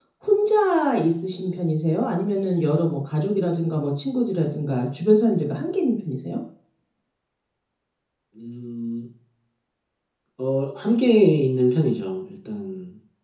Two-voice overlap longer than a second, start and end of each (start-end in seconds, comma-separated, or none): none